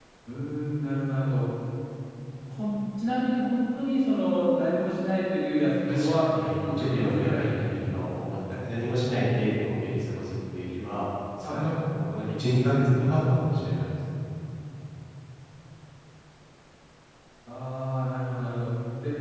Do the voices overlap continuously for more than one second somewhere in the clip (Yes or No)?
Yes